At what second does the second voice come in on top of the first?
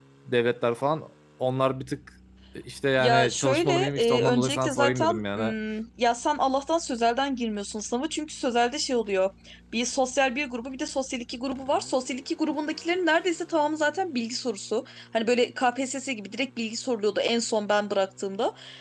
3.0 s

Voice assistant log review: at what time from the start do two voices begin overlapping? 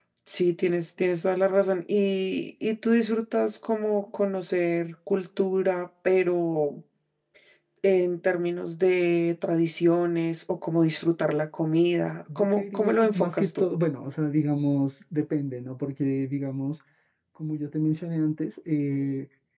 12.3 s

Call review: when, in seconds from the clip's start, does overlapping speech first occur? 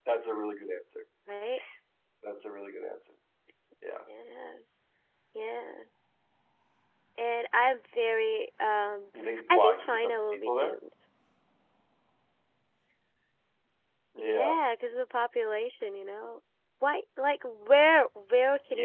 9.5 s

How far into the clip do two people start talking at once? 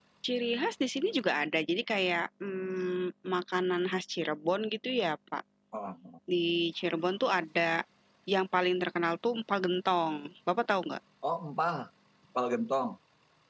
none

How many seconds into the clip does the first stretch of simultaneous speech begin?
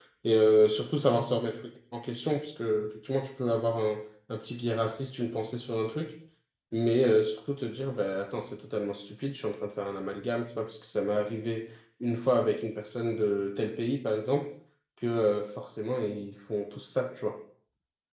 none

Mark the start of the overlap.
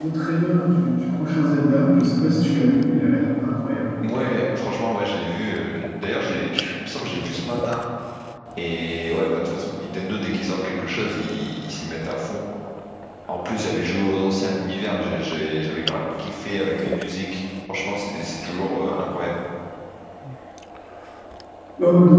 none

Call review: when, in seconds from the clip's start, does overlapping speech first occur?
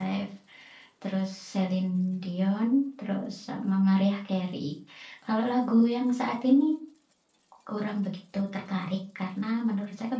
none

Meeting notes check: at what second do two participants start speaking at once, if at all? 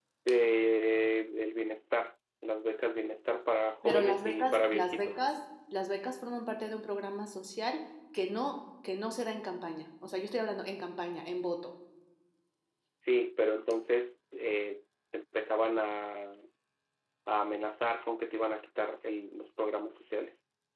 3.8 s

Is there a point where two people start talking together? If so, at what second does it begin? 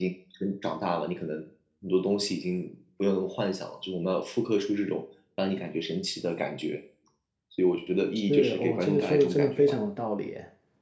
8.3 s

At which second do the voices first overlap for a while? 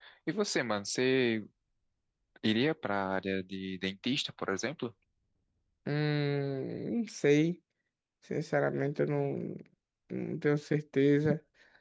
none

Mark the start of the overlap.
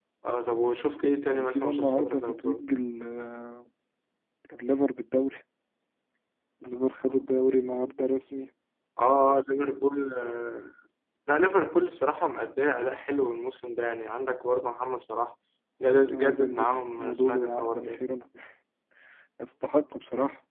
1.3 s

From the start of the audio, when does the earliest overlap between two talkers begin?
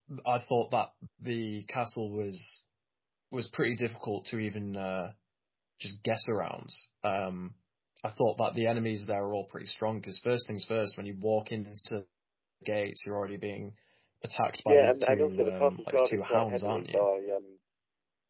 14.6 s

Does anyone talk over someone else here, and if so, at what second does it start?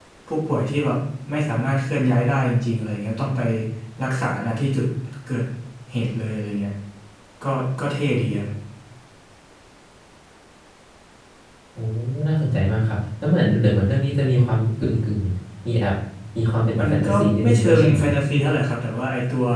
16.8 s

